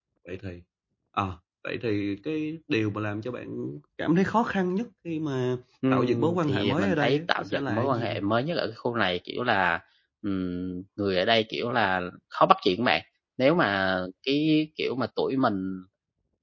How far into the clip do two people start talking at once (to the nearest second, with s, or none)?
6 s